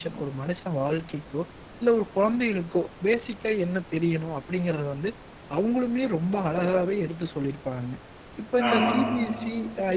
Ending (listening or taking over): listening